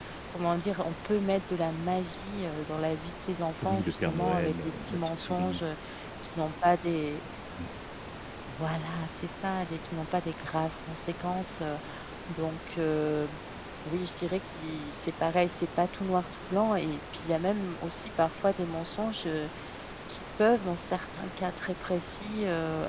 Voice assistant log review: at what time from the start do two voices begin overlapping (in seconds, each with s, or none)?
3.6 s